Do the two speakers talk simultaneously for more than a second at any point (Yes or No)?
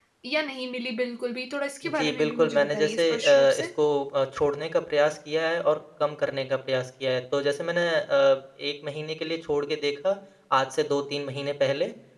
Yes